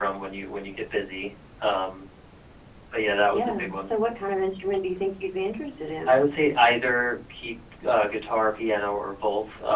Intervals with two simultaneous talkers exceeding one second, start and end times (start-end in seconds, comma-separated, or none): none